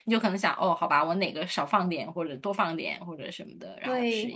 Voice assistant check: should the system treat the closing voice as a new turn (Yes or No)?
Yes